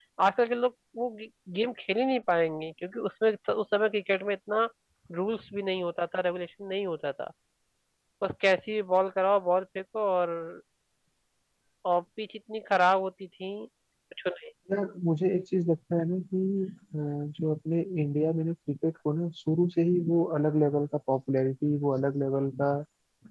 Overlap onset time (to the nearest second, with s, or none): none